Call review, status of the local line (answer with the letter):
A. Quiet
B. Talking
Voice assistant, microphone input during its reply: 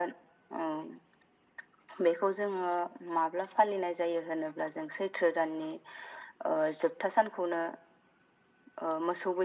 A